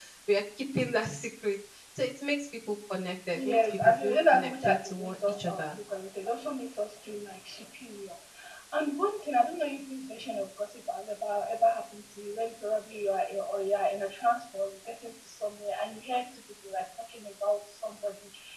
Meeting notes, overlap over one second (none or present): present